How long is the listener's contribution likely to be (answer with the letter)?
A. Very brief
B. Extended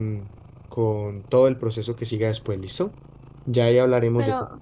A